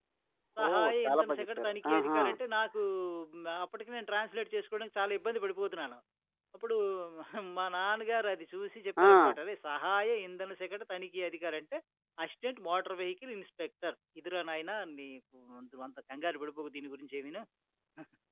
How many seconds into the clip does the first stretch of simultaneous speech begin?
1 s

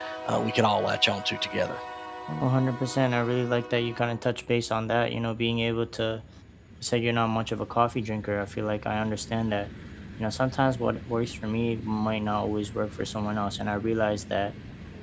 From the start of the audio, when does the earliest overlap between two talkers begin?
none

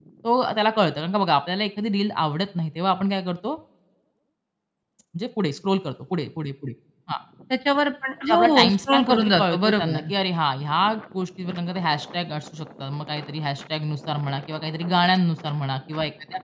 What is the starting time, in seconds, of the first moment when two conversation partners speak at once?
8 s

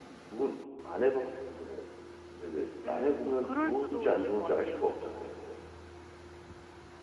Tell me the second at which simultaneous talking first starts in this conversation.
3 s

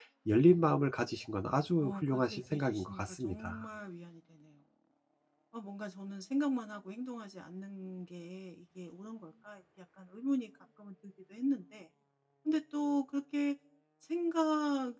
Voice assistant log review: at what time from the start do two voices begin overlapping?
2 s

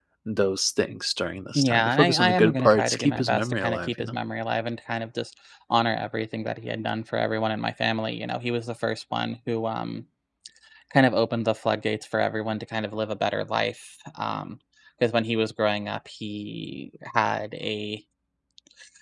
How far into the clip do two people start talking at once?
2 s

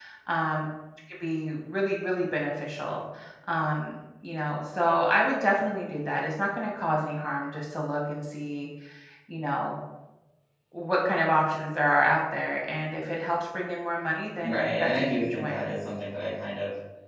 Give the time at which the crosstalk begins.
14 s

